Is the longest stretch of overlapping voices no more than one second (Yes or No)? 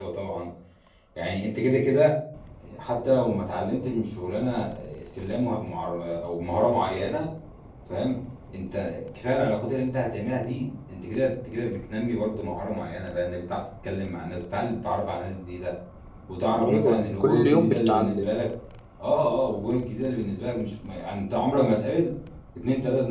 No